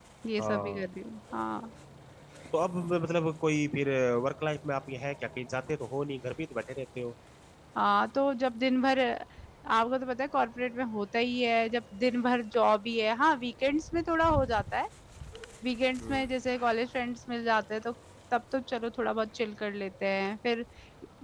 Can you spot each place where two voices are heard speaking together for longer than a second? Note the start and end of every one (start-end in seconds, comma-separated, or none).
none